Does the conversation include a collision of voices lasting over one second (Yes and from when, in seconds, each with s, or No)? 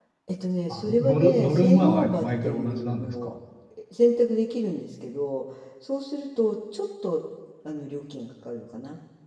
Yes, from 0.7 s